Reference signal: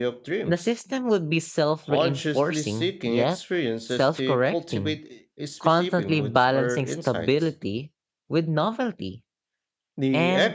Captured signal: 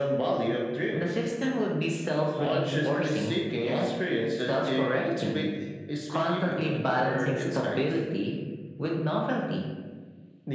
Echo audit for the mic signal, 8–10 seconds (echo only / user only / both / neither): echo only